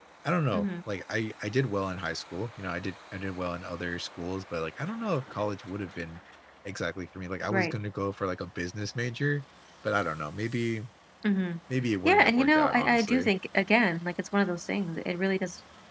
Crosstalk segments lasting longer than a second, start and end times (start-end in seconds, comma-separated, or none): 12.1-13.3